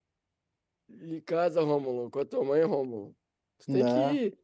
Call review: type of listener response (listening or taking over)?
listening